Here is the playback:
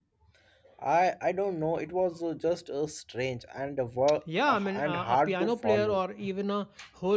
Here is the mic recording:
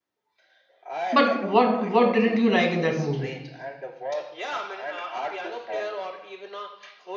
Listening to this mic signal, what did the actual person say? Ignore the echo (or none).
but what what didn't you like in that movie